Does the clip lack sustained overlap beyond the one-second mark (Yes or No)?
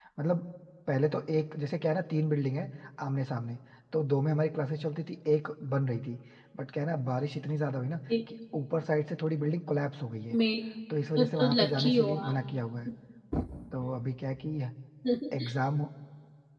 No